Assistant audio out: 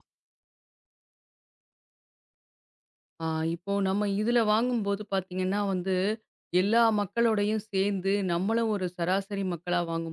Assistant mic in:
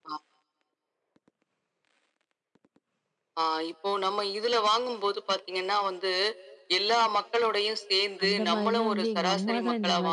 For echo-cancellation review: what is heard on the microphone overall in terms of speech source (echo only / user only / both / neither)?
both